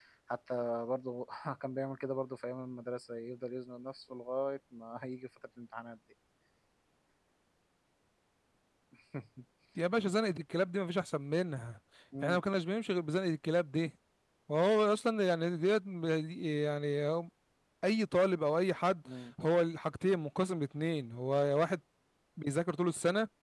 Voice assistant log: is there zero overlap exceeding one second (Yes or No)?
Yes